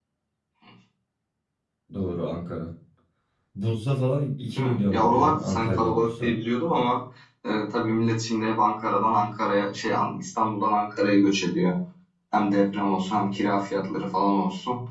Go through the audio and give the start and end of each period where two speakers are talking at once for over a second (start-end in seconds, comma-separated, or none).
4.6-6.4